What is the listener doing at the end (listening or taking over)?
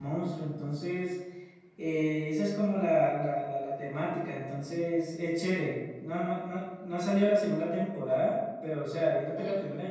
listening